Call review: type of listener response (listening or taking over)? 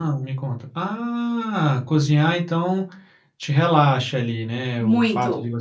listening